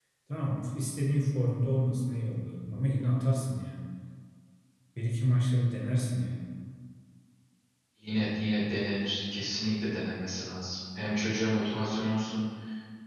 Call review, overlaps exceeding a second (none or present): none